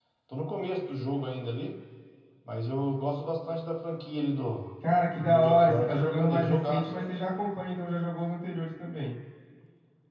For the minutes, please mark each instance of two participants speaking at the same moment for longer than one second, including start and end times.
5.2-7.1

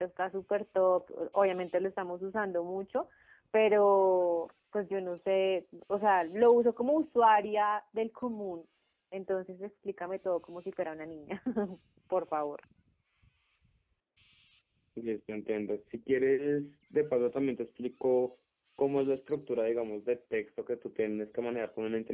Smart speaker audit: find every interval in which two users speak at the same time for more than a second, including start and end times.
none

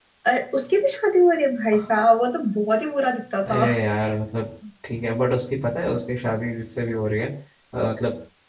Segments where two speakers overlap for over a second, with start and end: none

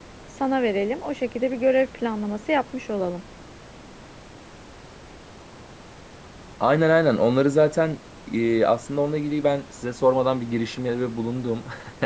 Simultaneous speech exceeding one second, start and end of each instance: none

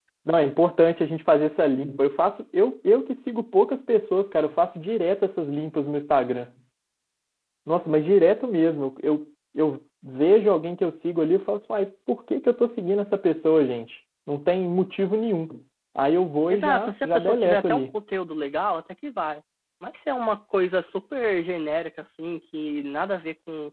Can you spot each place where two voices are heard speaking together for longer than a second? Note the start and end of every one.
16.5-17.9

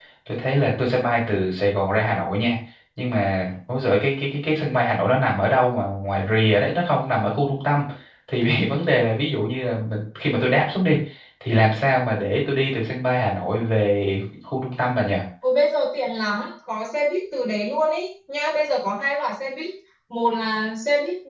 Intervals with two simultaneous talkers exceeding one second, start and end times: none

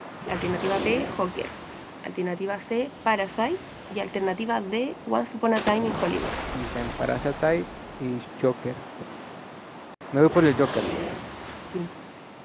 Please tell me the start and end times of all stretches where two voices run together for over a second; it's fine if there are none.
none

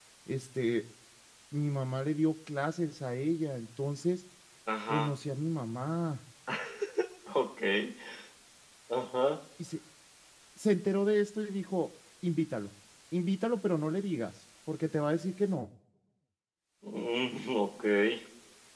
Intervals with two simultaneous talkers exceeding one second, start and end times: none

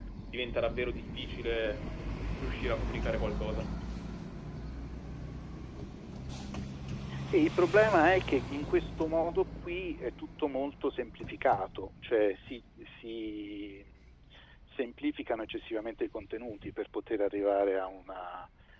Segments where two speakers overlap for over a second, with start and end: none

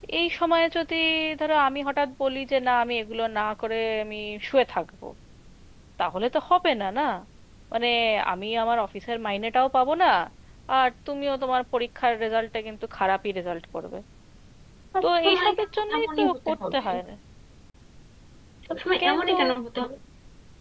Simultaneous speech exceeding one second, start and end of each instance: 15.0-16.9

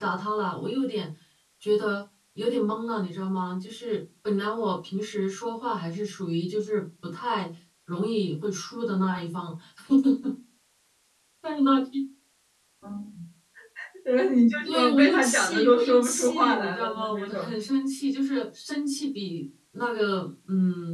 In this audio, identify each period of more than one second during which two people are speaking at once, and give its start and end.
14.6-17.4

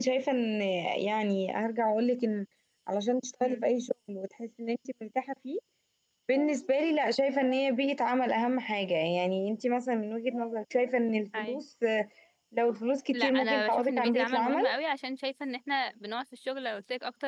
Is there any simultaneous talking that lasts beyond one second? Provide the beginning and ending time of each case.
13.1-14.6

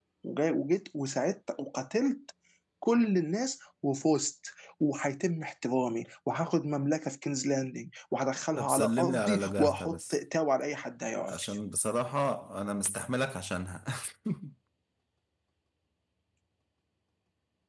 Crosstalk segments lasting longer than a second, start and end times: 8.6-10.2

